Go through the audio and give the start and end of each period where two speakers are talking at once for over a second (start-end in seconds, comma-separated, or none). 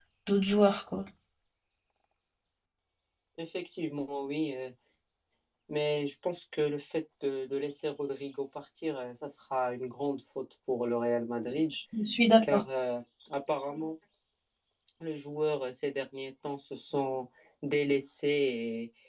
none